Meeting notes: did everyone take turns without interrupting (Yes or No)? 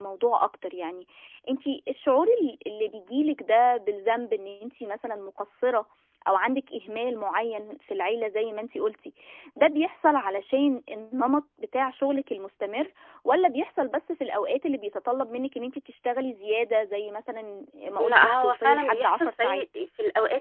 No